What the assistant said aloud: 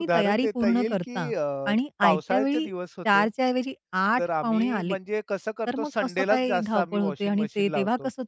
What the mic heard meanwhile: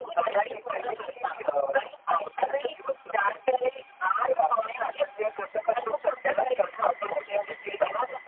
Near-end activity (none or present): none